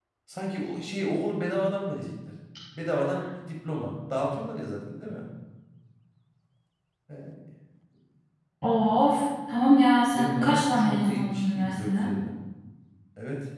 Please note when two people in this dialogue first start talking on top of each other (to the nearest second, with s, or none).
10 s